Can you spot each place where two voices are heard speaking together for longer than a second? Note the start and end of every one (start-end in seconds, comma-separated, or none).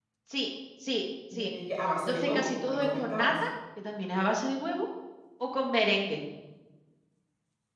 2.1-3.3